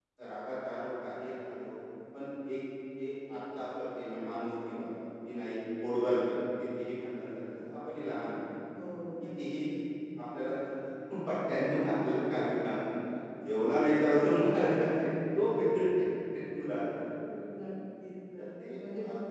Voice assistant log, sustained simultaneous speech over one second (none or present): none